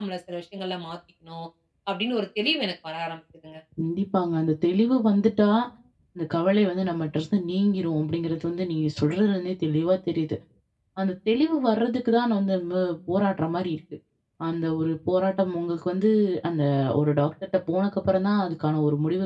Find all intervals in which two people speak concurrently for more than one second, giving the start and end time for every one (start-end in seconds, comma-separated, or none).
none